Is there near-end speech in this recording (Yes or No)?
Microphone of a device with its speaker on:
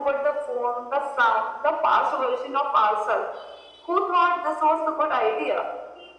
No